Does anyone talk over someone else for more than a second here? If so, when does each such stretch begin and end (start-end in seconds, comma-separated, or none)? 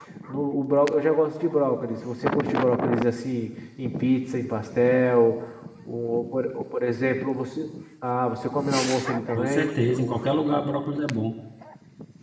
none